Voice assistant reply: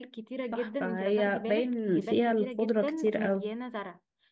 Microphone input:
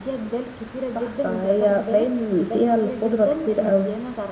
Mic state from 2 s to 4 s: echo only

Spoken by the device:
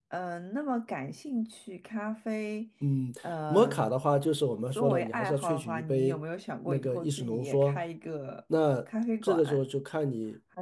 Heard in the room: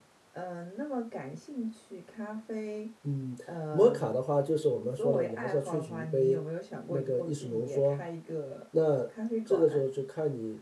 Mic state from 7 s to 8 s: echo only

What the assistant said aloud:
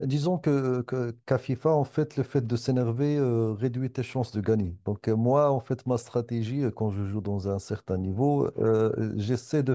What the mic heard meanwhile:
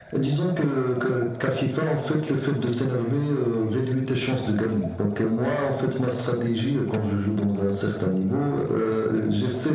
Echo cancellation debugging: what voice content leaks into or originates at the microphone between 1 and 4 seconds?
echo only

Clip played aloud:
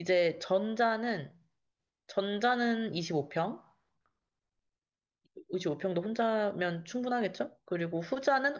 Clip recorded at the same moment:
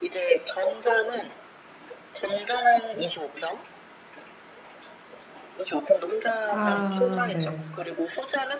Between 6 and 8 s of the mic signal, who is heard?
both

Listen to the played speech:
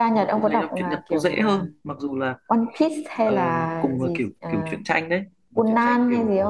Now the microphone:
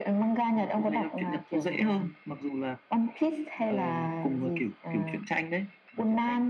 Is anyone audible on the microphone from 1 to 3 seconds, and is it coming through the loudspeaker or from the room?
echo only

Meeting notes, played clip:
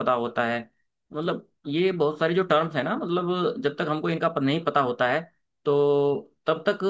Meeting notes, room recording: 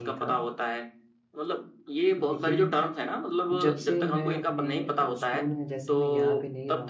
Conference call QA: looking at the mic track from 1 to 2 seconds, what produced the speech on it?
echo only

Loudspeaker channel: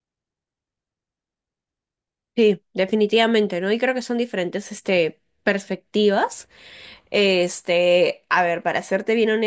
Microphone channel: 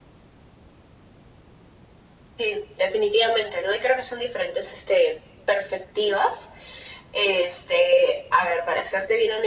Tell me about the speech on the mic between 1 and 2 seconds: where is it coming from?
neither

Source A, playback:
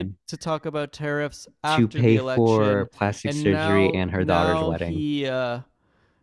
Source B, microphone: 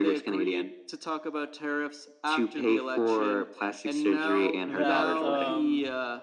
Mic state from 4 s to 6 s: both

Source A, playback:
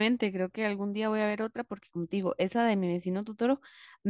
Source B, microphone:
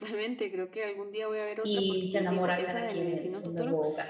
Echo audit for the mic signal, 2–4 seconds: both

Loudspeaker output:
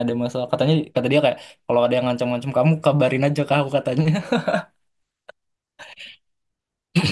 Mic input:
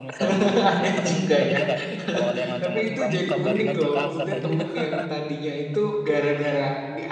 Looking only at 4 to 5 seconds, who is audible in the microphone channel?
both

